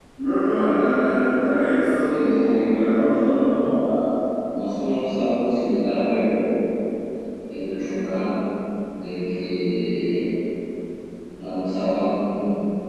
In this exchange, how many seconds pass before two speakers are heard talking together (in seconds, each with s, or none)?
2.0 s